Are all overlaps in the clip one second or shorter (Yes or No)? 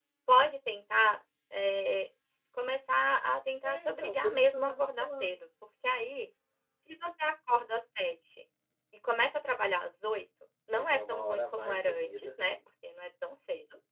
No